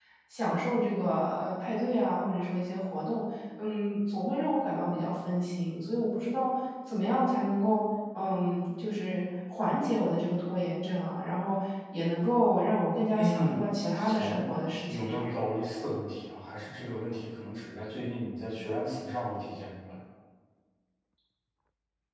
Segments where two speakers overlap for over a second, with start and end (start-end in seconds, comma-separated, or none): 13.2-14.4